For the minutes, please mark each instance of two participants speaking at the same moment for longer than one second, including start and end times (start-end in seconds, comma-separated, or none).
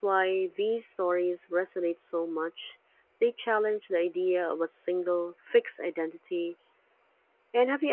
none